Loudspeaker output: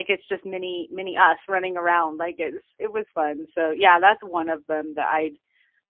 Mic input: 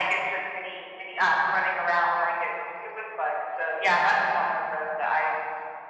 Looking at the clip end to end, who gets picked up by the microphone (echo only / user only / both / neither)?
echo only